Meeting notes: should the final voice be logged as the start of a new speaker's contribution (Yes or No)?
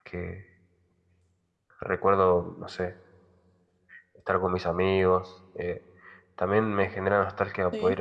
No